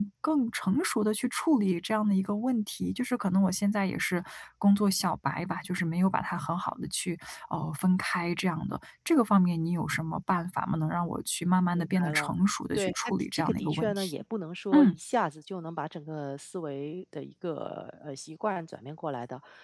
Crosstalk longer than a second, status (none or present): present